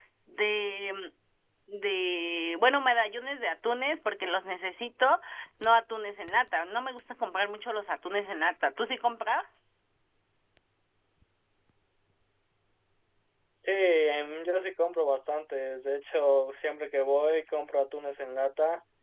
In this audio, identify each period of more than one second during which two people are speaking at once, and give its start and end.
none

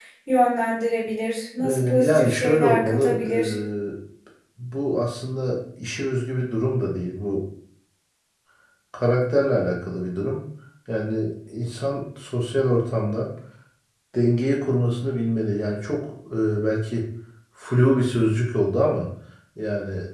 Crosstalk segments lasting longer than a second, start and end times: 1.6-3.5

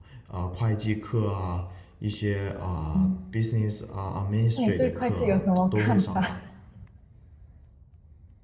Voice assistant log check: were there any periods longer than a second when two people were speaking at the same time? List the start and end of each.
4.6-6.2

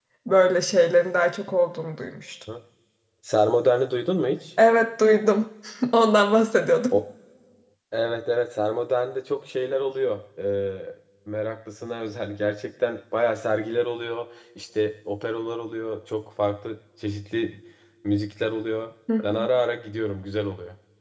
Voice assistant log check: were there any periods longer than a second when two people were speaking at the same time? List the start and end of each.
none

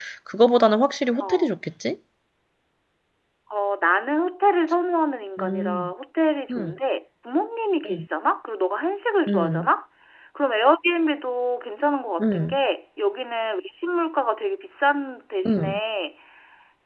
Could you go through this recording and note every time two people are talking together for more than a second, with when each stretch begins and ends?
none

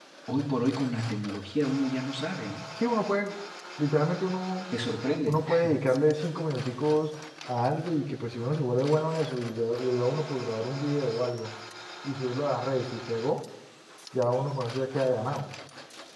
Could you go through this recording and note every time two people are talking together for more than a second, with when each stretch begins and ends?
none

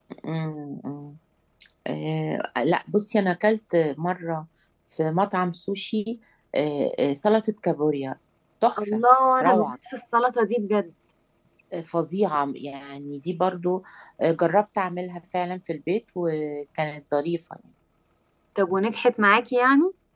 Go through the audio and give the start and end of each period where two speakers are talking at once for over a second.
none

